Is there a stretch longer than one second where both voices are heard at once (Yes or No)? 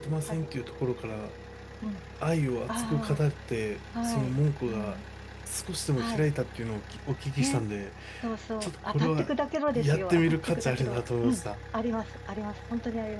Yes